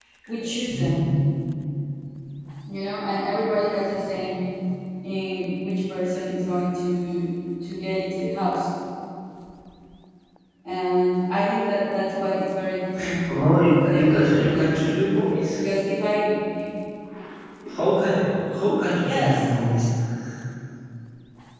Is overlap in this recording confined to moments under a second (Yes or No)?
No